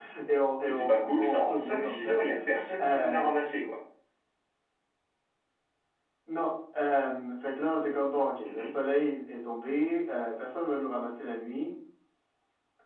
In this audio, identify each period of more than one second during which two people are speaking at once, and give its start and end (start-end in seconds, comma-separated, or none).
0.7-2.2